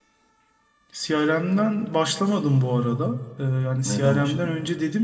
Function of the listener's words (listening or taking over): listening